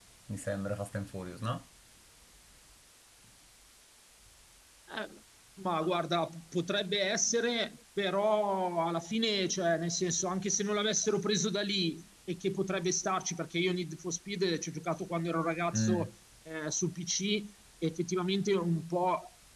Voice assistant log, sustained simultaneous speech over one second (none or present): none